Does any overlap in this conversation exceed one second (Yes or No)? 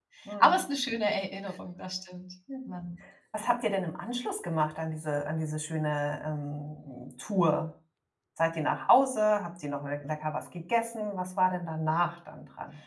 No